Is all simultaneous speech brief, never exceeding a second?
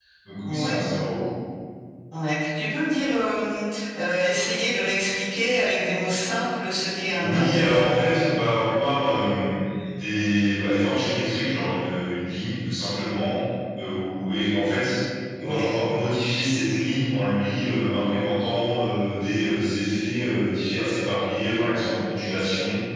Yes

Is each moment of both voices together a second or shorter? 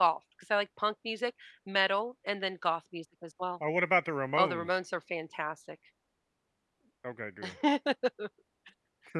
Yes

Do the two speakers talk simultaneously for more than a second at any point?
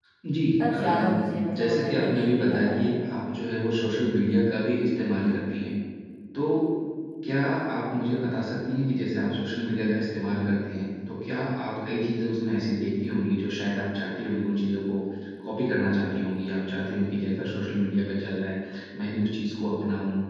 Yes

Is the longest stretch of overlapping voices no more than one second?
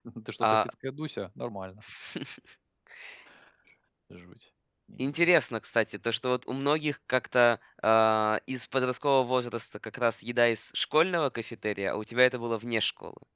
Yes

